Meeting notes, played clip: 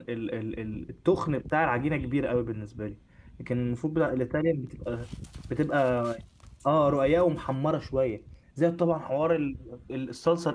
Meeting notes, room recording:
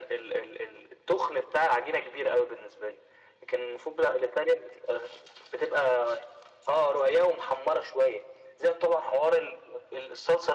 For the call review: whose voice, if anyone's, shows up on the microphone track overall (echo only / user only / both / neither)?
echo only